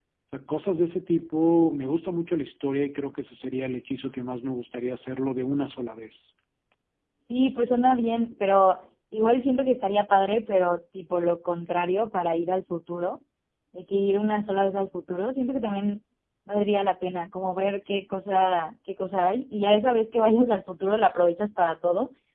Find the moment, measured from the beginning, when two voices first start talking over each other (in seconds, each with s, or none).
none